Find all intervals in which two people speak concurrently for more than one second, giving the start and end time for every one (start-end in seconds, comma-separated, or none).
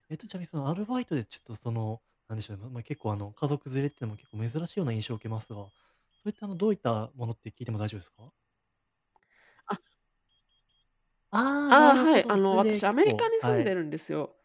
11.7-13.7